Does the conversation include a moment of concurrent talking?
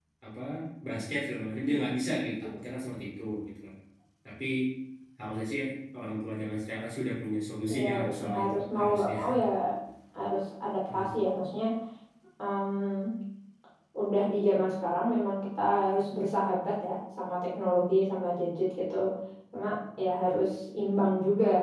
Yes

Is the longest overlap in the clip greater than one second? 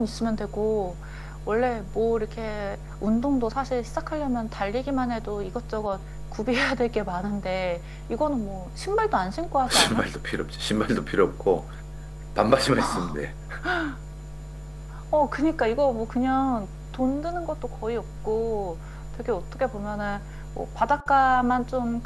No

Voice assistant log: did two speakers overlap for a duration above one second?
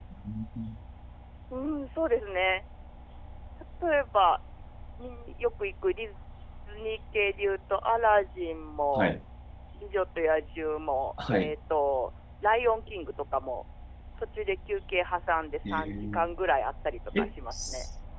No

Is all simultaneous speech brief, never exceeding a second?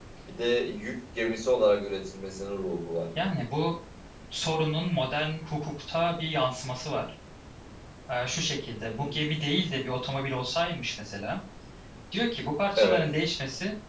Yes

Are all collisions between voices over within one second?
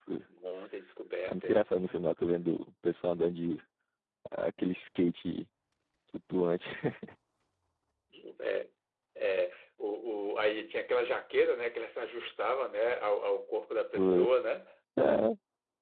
Yes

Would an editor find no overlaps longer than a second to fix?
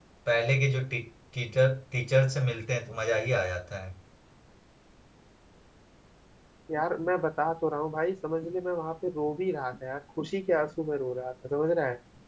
Yes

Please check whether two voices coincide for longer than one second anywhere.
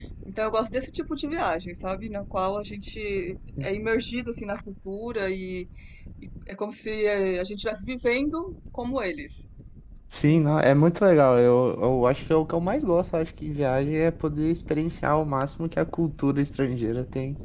No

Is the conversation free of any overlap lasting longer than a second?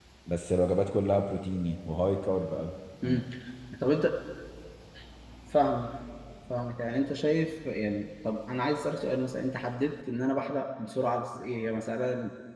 Yes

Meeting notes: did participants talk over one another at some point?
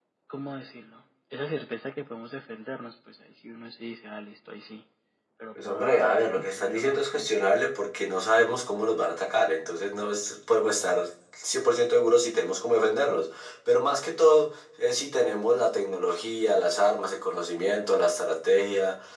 Yes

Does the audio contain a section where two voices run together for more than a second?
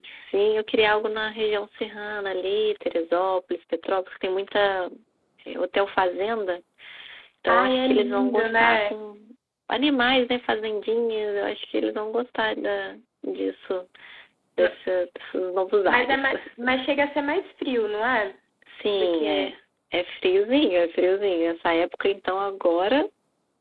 Yes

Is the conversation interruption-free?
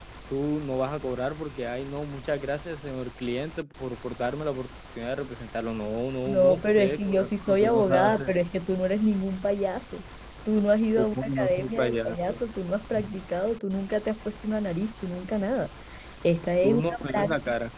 No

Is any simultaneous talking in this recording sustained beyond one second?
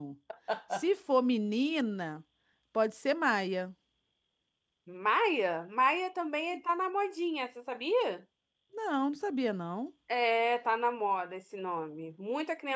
No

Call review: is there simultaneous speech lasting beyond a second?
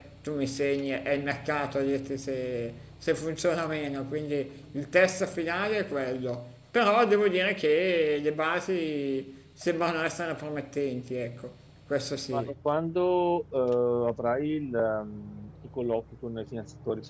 No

